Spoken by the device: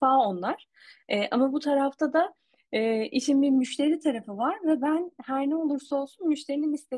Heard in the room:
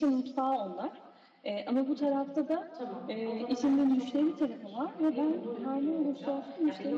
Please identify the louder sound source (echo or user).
echo